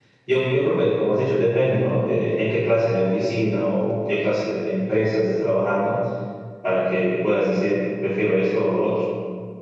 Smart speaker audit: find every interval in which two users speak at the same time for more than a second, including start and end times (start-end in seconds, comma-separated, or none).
none